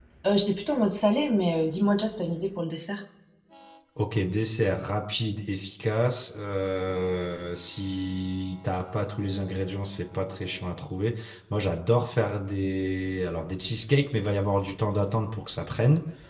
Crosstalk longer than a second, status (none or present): none